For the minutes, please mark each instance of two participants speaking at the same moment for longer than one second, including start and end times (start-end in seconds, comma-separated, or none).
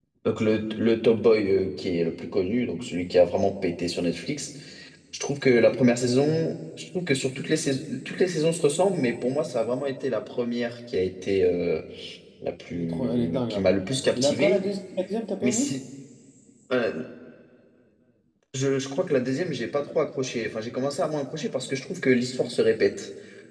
12.7-14.6